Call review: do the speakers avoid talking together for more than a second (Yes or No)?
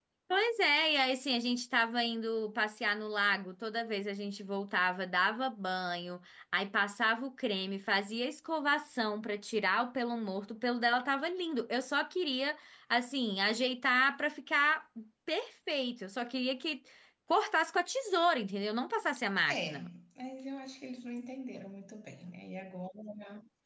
Yes